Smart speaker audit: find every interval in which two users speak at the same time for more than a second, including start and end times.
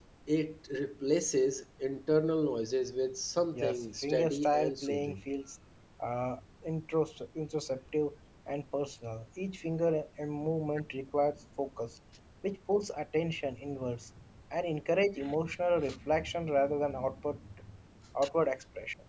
3.5-5.1

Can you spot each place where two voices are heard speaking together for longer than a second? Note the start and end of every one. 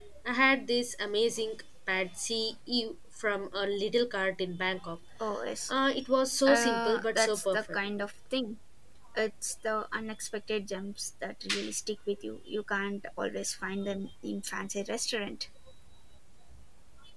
6.5-7.8

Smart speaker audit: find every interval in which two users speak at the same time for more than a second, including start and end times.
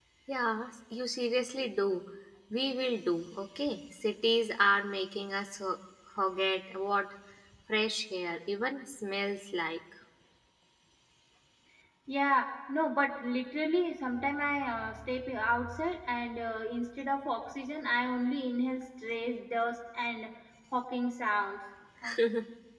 none

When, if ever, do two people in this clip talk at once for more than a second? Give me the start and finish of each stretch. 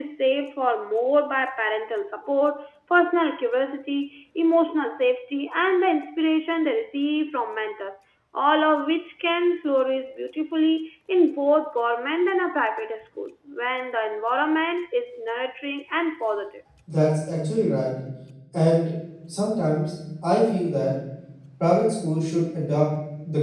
none

